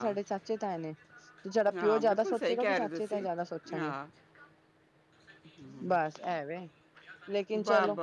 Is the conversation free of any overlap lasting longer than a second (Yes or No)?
No